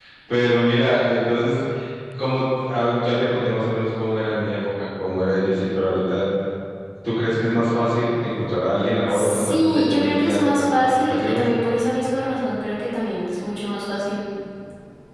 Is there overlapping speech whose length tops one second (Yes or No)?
Yes